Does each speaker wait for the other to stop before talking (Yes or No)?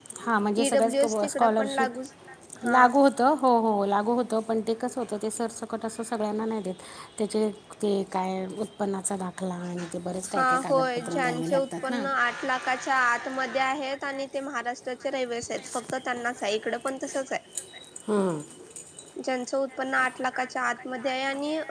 No